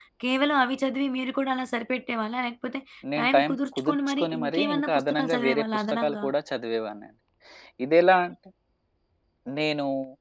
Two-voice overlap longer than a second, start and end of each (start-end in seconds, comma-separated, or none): 3.2-6.2